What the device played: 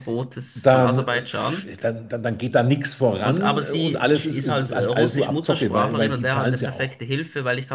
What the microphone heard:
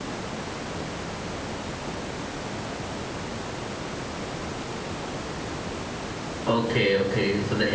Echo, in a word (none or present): none